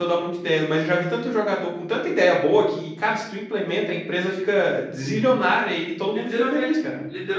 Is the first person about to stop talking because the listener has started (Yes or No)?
Yes